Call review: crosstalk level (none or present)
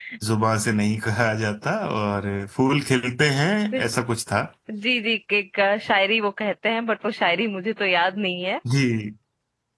none